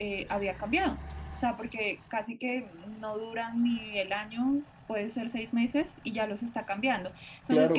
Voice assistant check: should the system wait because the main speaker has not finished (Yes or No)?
No